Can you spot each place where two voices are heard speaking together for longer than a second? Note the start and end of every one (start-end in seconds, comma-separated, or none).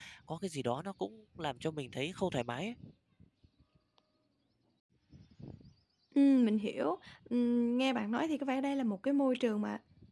none